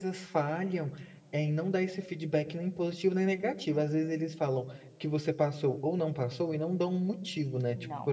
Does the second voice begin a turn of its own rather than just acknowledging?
No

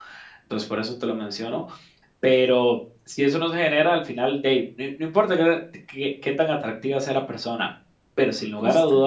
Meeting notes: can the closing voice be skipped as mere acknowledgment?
Yes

